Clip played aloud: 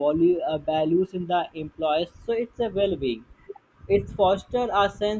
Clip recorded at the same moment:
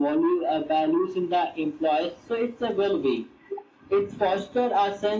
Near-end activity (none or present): none